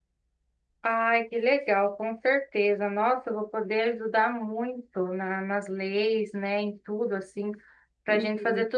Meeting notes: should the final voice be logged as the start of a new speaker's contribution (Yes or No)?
No